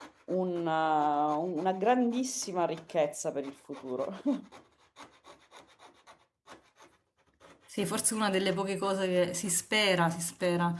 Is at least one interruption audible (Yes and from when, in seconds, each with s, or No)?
No